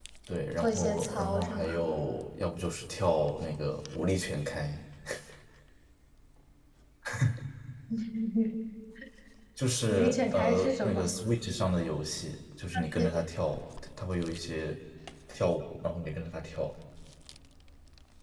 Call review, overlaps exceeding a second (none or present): present